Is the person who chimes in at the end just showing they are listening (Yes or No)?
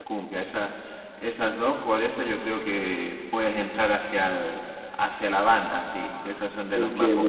No